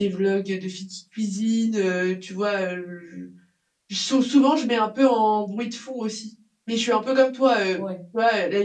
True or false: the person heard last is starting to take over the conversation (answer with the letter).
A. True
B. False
B